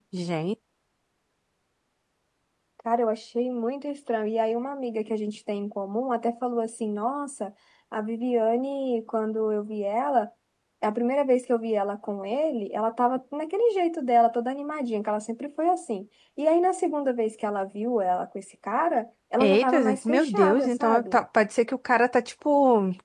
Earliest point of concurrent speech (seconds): 19 s

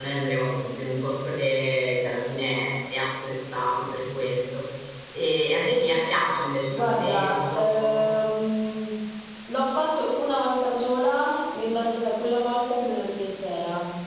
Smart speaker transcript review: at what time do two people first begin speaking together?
7 s

